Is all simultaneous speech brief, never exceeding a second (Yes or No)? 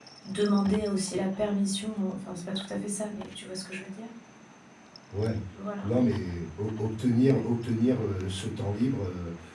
Yes